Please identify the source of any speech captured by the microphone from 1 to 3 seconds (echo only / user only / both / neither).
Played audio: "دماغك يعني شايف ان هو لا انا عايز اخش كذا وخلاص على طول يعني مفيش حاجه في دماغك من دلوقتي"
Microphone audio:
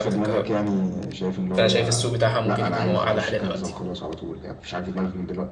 both